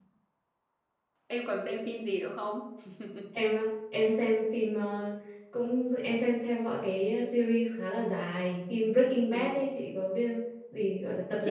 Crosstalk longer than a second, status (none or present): none